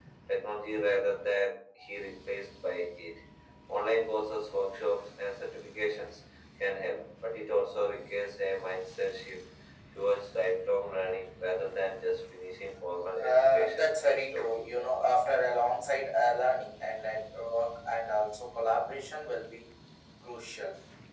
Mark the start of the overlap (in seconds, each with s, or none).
13.2 s